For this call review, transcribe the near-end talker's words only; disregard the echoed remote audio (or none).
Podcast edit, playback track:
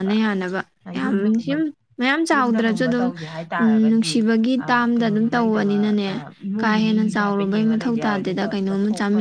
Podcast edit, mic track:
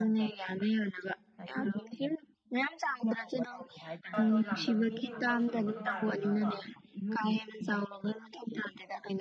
ꯕꯥꯇꯣꯟ ꯂꯥꯛꯇꯕ ꯃꯤꯗꯤ ꯑꯃꯨꯛ ꯇꯧꯁꯜꯂꯨꯕ ꯅꯨꯡꯉꯥꯏꯔꯣꯏꯗꯅꯀꯣ